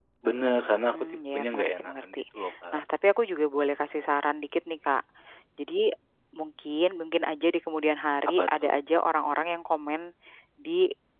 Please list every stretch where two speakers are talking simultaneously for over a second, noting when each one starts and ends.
0.9-2.2

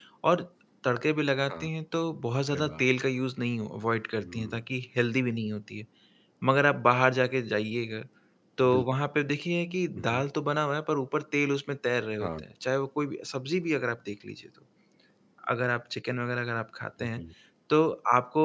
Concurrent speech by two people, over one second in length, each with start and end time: none

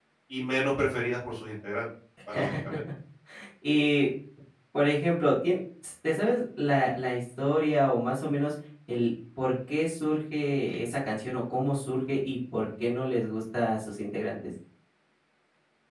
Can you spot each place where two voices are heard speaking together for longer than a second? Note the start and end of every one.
none

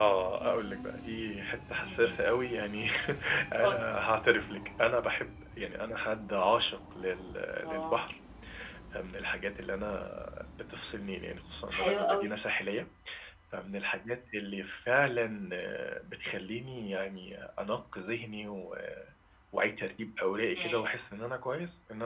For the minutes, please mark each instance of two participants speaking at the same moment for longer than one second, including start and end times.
none

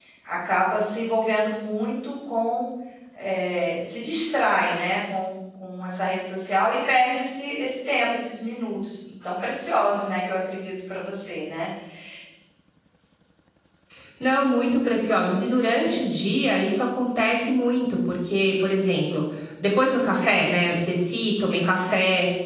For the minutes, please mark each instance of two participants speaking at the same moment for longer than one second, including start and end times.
none

